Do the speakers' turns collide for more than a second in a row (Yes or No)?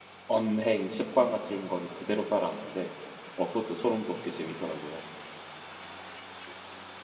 No